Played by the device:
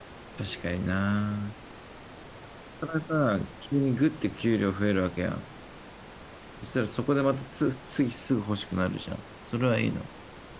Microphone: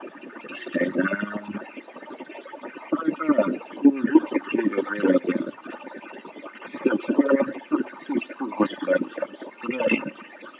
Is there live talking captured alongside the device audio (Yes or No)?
No